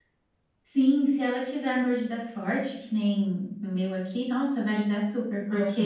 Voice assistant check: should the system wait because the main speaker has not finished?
Yes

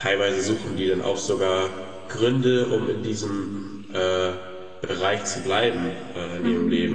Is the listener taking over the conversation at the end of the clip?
No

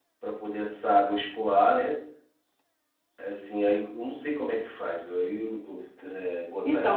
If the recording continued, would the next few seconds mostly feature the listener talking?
Yes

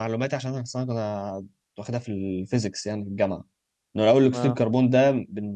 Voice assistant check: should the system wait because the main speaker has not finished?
Yes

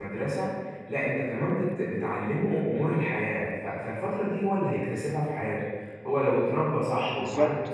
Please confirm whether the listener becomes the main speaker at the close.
No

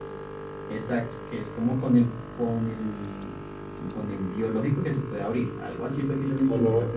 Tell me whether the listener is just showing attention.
No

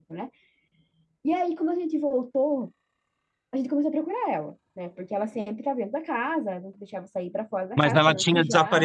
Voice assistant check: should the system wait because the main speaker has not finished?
No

